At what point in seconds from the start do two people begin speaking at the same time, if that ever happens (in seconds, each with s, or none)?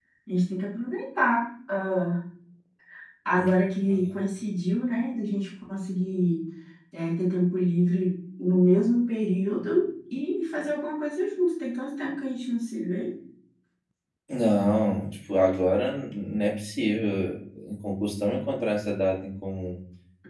none